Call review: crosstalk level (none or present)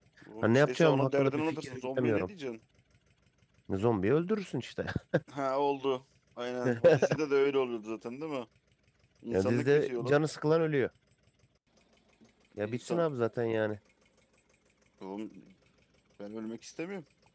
present